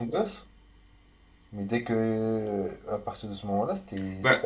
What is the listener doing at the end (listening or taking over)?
taking over